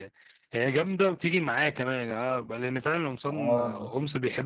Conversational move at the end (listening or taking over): listening